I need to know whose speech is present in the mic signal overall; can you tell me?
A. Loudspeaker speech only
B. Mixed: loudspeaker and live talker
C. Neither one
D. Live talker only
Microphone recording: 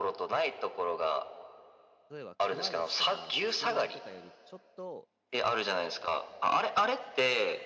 B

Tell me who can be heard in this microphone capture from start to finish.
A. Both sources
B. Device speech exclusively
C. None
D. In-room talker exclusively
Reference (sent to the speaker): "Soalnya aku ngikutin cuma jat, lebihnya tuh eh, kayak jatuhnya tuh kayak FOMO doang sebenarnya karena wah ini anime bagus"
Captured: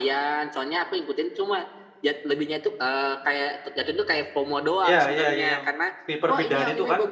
A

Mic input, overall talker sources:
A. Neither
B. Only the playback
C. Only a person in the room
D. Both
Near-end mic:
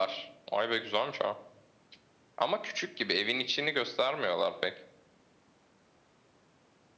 B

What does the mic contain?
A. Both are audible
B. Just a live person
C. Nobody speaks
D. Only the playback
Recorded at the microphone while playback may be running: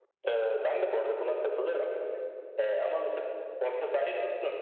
D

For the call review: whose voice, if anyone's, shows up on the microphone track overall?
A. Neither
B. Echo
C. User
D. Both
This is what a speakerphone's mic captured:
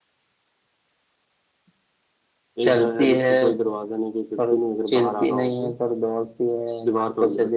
B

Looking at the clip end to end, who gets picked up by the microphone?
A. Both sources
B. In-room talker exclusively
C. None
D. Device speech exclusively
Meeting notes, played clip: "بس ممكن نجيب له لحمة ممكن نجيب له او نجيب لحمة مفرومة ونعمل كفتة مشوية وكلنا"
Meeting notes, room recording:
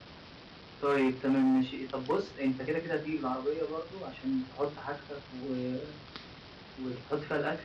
B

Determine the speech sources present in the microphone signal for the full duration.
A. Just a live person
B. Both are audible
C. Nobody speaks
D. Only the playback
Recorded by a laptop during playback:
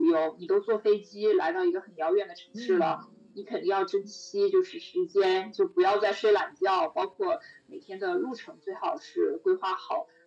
B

